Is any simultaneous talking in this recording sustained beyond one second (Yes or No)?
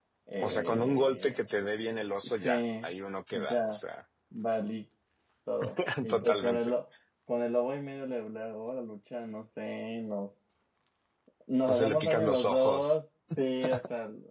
Yes